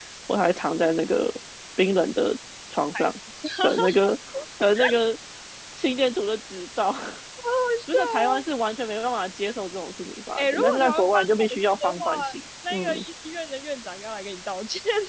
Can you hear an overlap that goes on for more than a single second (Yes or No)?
Yes